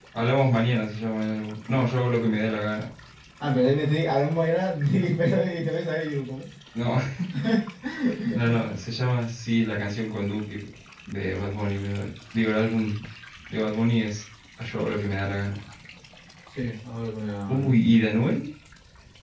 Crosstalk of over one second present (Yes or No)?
No